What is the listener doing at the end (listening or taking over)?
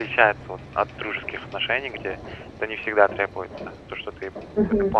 taking over